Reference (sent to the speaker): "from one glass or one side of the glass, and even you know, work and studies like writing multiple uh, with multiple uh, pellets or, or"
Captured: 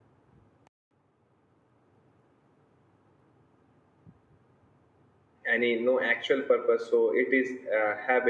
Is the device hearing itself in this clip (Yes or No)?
No